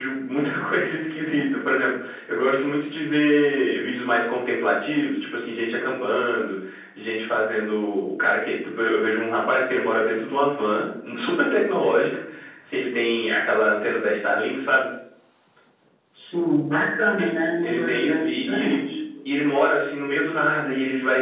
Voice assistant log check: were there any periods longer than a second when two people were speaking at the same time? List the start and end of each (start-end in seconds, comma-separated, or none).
17.2-18.8